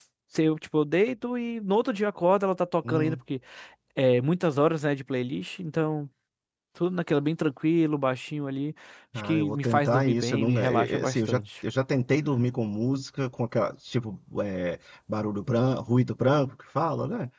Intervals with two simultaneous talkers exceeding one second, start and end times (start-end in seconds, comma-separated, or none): 9.2-11.4